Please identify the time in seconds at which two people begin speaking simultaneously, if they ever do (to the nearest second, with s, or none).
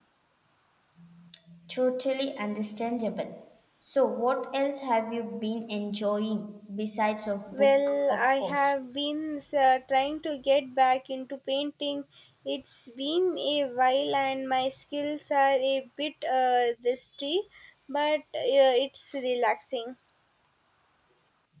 8 s